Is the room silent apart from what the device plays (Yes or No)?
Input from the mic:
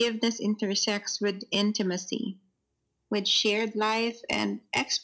Yes